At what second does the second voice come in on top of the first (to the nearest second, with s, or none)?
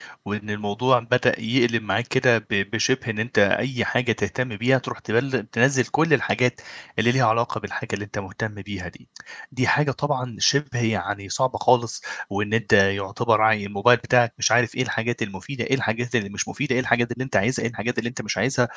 none